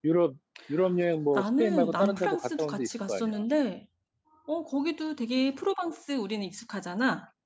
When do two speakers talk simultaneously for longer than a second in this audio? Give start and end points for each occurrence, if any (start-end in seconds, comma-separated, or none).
1.4-3.3